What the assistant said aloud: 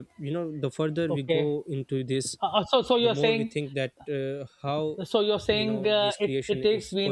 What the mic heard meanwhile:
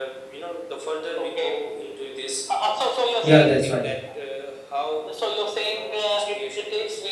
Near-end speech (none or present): present